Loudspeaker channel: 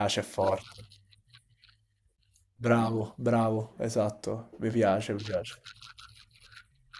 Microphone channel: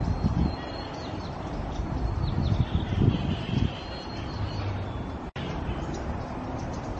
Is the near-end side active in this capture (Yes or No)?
No